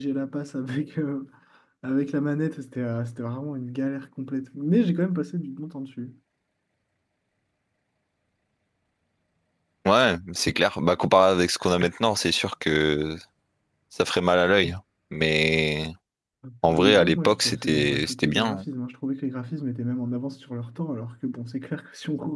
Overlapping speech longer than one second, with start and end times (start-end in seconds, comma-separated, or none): 16.7-18.6